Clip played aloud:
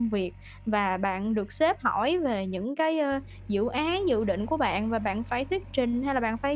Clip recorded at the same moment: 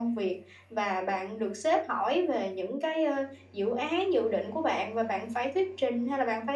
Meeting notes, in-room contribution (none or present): none